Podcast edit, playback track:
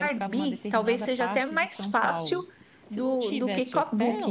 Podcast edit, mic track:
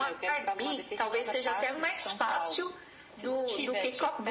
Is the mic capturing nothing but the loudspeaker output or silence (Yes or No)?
Yes